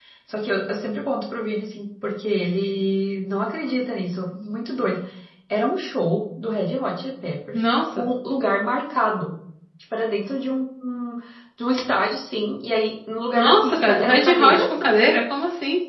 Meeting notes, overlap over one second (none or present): present